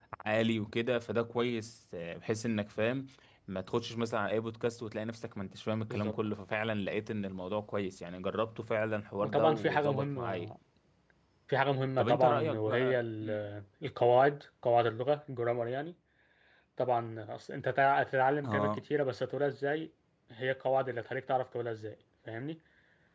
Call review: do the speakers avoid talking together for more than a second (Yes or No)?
No